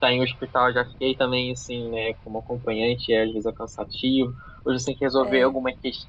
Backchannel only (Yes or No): Yes